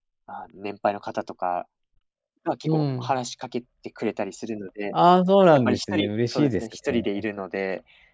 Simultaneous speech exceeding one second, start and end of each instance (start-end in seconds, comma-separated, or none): 5.5-7.2